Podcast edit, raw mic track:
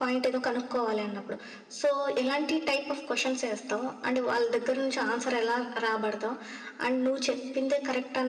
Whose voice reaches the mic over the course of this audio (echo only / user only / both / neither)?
user only